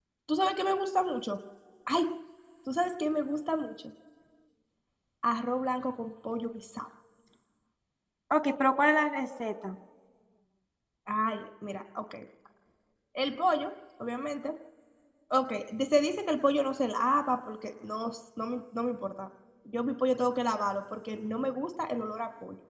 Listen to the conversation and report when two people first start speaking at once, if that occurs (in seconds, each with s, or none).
none